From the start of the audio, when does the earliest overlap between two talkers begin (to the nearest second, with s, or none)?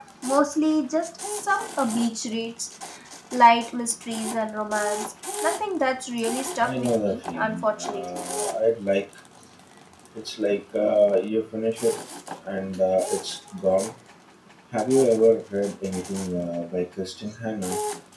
7 s